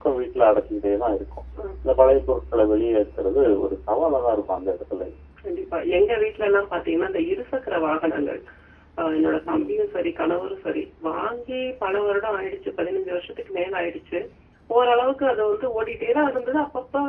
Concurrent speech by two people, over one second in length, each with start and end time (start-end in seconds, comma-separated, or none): none